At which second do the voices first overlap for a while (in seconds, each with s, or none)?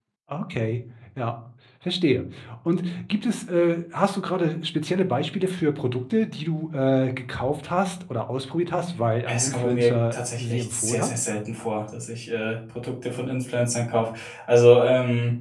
9.2 s